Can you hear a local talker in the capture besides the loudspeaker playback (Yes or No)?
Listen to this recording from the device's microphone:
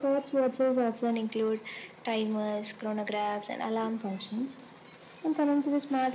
No